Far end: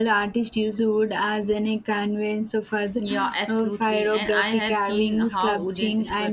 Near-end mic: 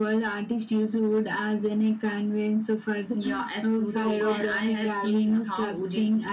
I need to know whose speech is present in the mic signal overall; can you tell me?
both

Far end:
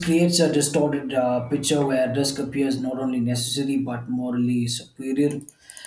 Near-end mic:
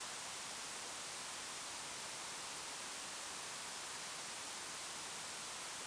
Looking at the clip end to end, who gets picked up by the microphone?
neither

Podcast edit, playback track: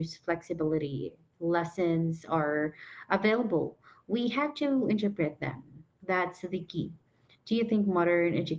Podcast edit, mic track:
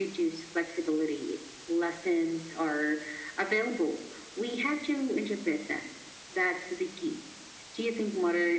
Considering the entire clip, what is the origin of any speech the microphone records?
echo only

